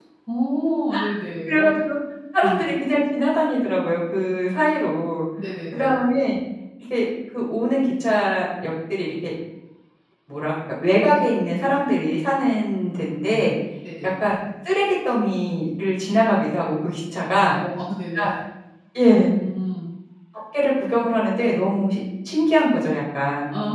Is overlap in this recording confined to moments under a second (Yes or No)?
Yes